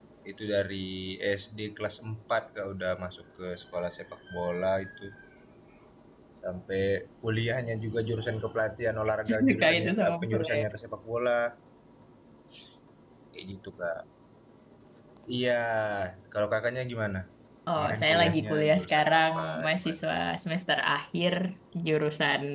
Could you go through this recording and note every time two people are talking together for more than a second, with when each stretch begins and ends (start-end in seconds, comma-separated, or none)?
9.4-10.6, 17.8-20.1